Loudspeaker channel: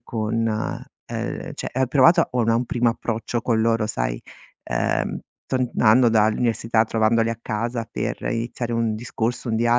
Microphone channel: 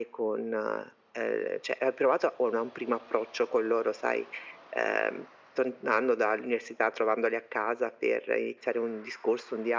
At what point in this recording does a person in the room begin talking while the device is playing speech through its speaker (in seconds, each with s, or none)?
none